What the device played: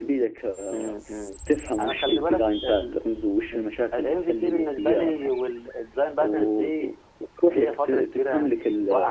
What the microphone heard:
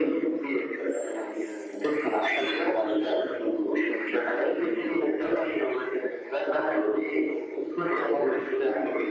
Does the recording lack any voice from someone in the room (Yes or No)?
Yes